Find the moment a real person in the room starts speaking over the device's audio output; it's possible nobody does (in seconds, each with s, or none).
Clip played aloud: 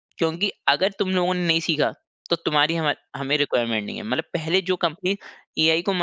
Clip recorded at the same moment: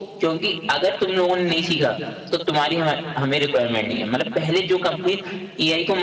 none